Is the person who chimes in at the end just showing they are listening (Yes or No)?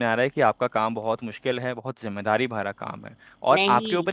Yes